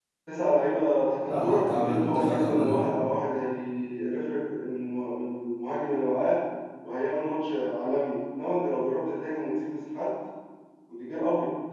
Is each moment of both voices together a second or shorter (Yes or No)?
No